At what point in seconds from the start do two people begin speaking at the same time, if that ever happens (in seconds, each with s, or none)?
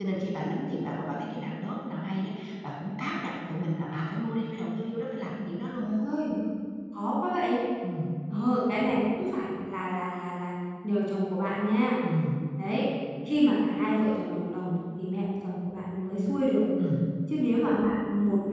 none